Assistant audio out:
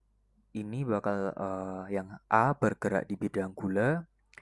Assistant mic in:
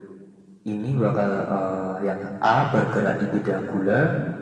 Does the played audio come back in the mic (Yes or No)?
Yes